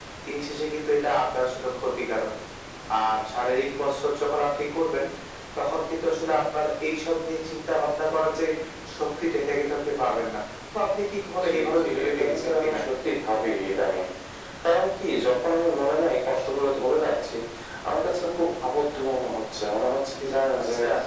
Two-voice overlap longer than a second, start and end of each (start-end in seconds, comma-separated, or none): 11.4-12.8